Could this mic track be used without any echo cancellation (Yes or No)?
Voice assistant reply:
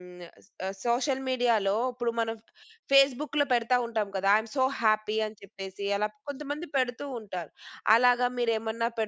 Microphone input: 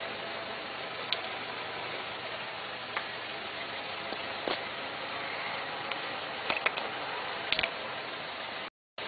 Yes